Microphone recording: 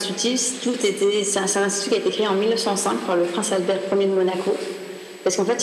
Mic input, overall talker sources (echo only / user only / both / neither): echo only